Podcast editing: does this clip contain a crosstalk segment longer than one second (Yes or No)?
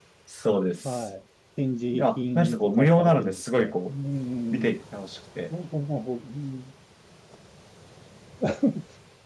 Yes